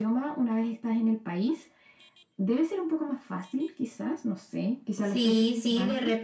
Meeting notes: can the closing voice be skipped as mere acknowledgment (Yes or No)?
No